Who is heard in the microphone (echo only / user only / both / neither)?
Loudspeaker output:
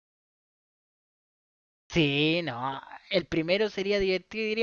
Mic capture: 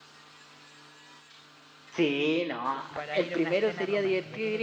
both